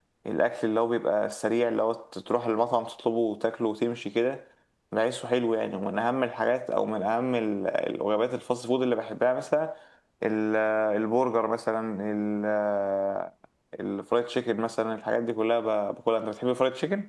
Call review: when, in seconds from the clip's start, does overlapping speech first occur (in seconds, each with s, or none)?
none